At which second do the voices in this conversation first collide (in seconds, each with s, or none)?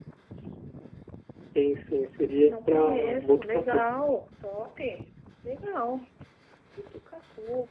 2.3 s